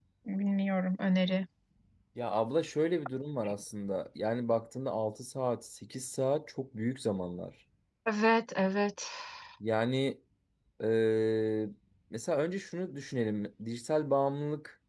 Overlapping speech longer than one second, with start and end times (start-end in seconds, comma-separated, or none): none